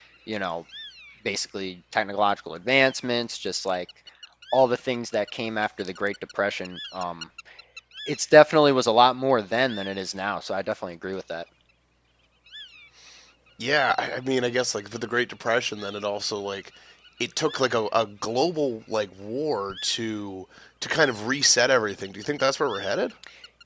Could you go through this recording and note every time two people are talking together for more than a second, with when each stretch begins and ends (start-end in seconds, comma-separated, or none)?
none